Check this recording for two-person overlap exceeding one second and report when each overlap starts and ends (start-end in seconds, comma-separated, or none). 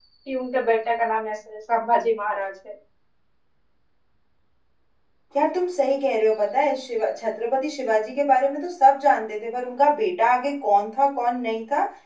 none